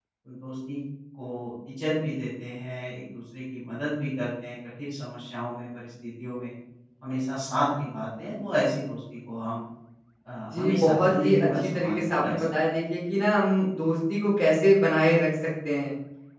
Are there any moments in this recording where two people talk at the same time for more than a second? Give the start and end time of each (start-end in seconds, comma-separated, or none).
10.5-12.5